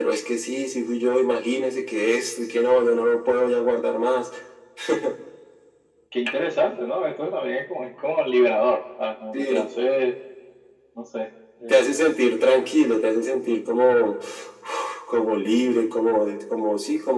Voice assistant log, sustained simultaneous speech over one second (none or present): none